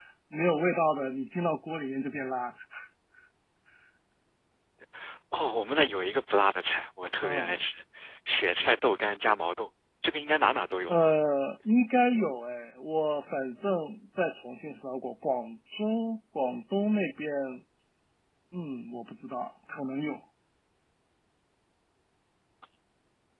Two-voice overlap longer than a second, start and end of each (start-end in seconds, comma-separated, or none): none